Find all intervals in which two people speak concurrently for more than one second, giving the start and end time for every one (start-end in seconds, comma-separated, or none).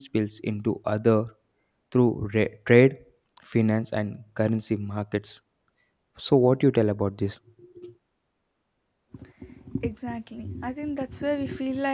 none